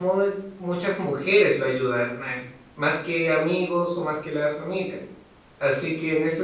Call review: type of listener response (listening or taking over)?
listening